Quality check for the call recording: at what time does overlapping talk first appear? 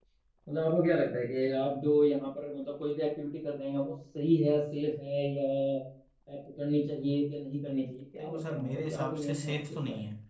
8.2 s

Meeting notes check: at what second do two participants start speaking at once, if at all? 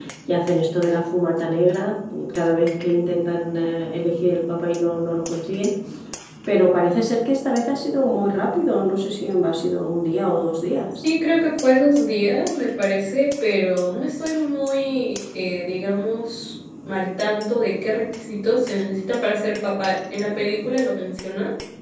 none

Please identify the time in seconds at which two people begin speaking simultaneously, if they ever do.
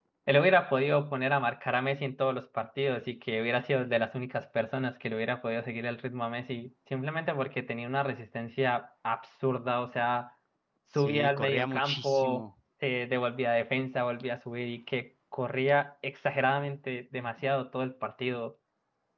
11.0 s

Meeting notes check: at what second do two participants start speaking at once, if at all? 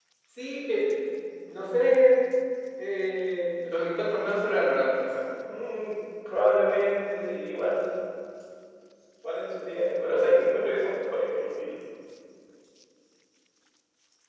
none

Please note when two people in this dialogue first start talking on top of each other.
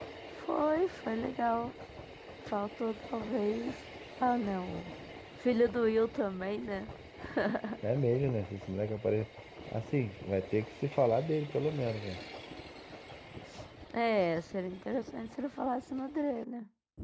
none

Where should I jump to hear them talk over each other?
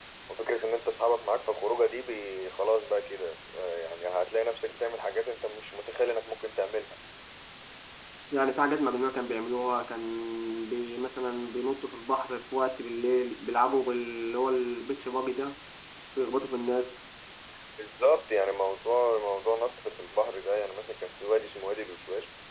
none

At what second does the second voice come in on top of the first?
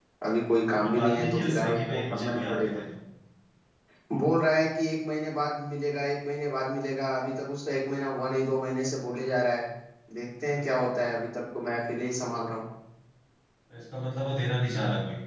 0.7 s

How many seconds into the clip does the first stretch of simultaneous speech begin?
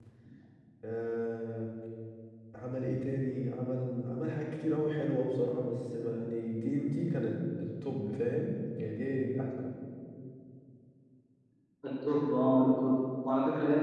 none

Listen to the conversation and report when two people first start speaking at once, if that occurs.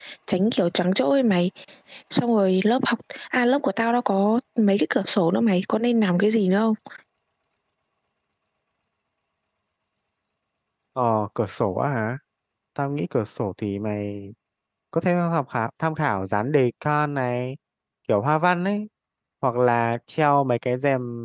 none

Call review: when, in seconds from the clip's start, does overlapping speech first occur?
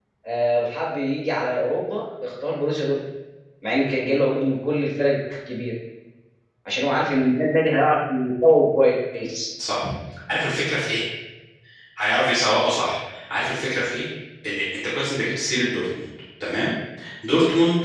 none

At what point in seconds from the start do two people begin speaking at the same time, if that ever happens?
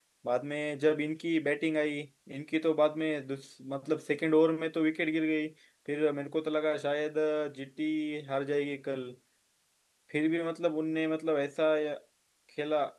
none

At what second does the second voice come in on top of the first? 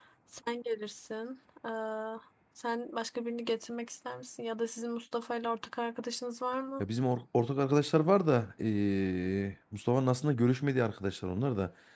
none

